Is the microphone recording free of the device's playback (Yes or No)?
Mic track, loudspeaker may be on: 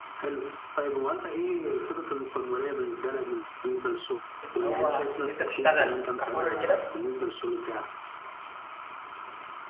No